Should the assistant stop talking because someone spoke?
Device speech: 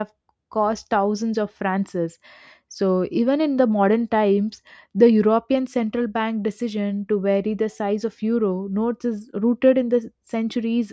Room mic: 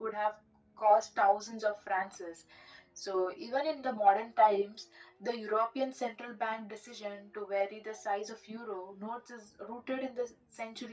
No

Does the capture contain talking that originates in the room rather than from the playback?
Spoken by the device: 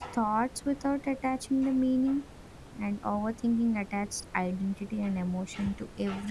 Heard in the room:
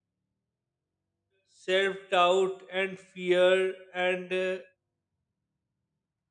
Yes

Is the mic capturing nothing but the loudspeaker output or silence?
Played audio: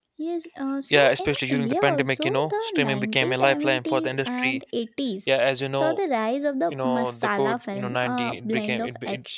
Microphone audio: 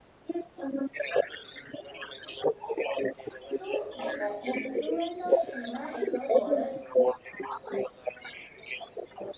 No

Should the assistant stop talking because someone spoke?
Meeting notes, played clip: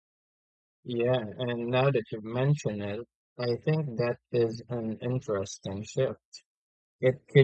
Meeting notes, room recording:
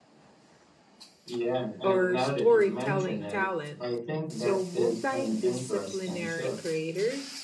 Yes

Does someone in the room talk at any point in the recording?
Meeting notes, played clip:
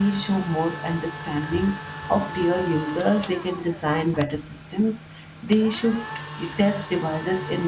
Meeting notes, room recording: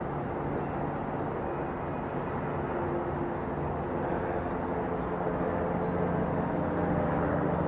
No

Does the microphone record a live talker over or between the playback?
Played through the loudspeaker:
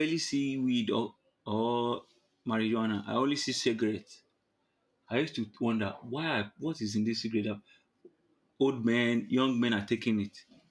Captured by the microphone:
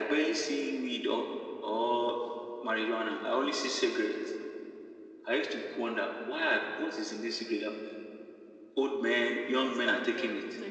Yes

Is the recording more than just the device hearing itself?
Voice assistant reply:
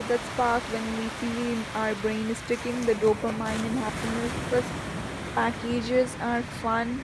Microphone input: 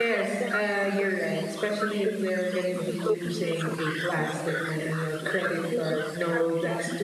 Yes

